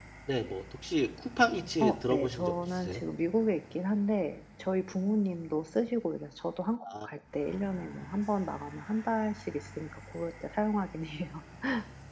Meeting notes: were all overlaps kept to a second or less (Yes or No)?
No